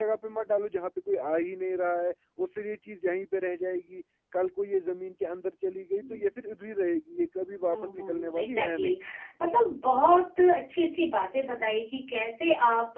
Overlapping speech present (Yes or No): Yes